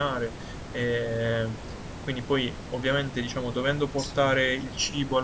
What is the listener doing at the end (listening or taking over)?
listening